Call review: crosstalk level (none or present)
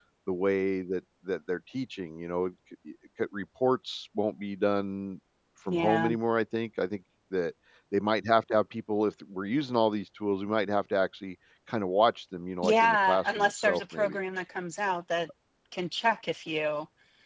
present